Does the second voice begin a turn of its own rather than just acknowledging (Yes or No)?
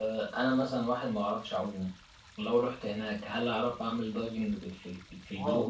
Yes